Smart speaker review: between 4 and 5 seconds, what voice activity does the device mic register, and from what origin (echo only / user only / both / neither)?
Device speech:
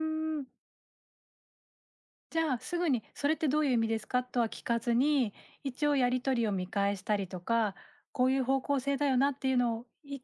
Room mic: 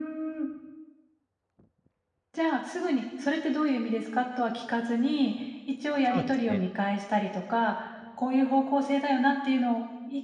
echo only